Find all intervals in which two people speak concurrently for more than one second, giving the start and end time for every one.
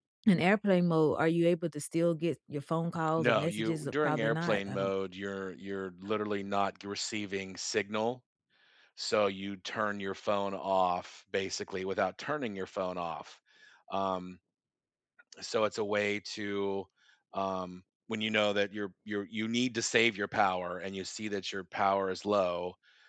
3.2-4.9

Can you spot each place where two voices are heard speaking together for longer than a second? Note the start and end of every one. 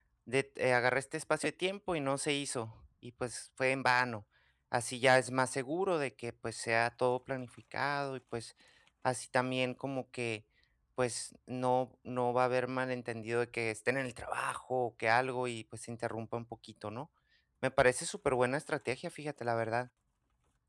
none

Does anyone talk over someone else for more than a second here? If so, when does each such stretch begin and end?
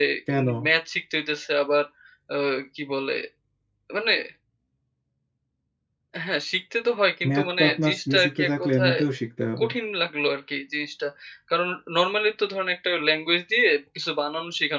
7.3-9.0

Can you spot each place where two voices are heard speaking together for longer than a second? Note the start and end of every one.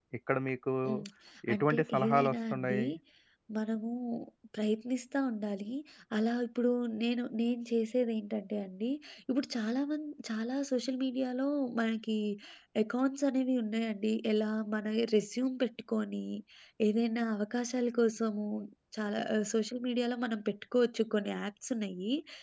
1.5-2.8

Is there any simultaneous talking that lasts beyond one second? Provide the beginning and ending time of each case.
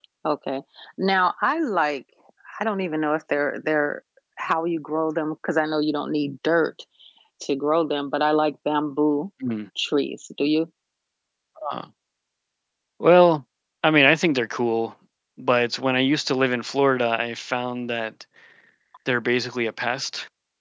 none

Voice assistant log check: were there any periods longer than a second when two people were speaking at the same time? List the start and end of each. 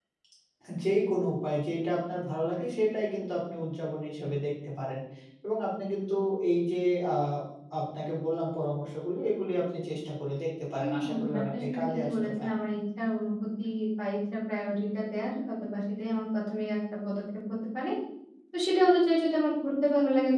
10.8-12.5

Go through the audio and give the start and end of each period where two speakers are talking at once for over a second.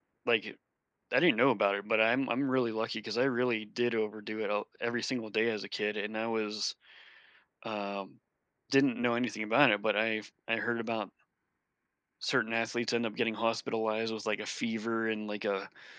none

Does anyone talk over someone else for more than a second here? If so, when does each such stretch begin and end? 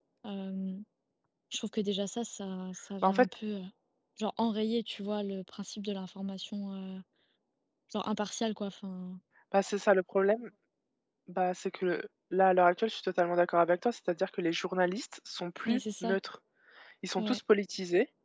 none

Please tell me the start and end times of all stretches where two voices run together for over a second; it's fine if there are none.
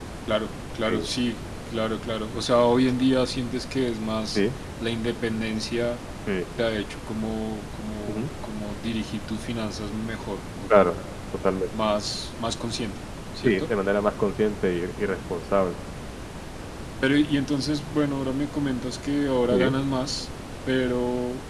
none

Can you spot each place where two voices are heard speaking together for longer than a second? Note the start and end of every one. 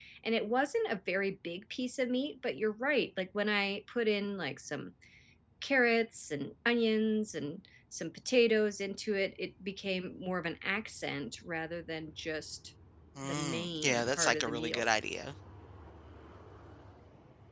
13.2-14.9

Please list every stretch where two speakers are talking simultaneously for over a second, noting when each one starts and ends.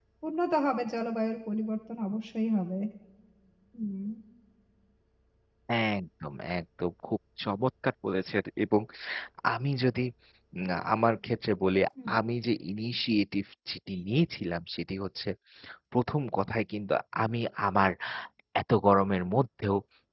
none

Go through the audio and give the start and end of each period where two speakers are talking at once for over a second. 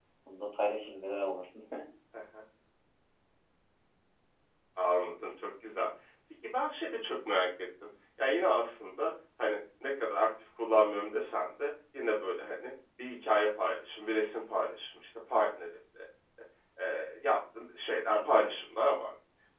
none

